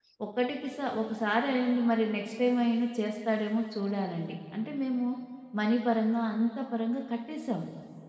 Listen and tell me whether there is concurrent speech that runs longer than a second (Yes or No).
No